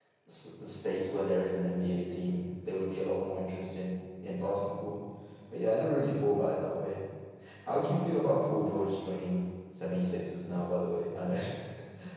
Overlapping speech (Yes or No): No